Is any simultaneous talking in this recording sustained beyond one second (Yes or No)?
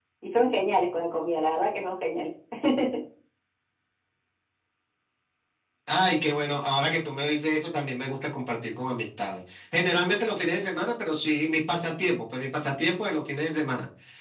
No